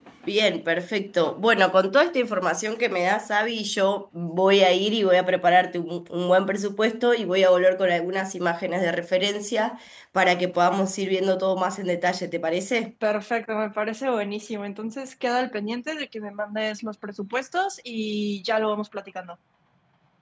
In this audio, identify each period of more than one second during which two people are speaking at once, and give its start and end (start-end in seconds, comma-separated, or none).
none